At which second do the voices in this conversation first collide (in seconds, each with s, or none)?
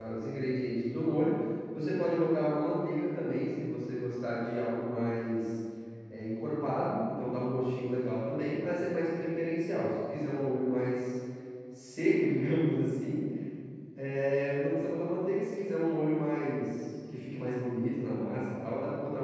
none